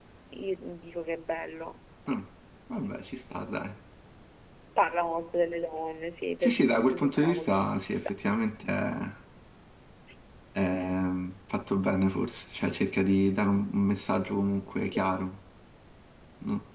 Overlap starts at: 6.4 s

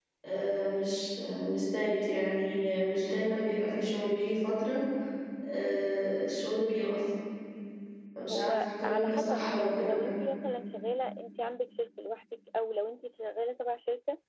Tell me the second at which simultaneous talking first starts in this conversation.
8.3 s

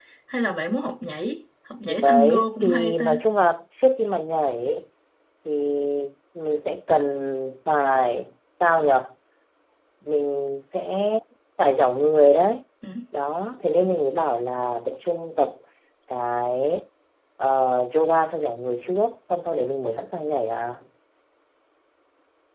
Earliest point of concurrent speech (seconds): 1.9 s

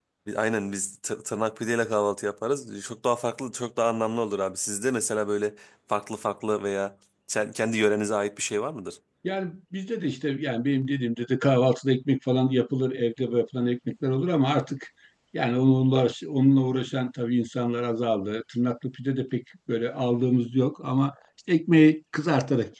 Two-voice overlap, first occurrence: none

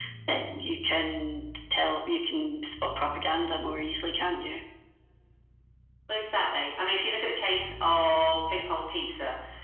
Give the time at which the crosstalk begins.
none

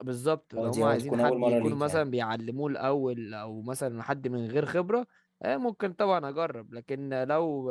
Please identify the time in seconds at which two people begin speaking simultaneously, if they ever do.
0.6 s

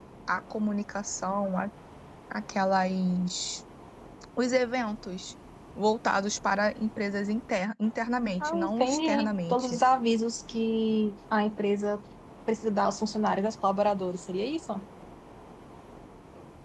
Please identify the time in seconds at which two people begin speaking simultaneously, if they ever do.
8.4 s

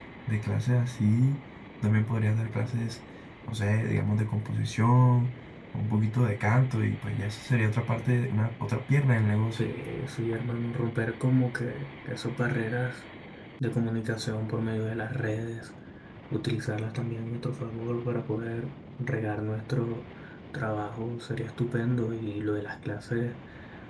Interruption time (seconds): none

